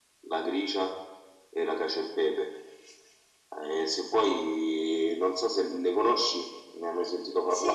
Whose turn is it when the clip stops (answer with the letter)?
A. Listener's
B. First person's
A